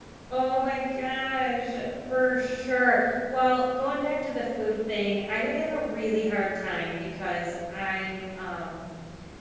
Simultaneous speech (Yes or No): No